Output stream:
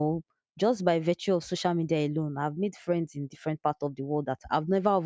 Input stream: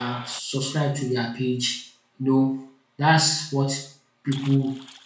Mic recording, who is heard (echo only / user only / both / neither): user only